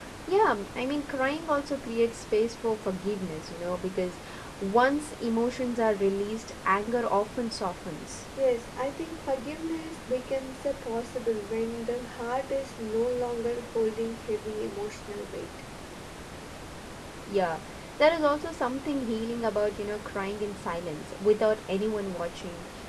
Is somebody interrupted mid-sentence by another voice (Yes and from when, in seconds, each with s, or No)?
No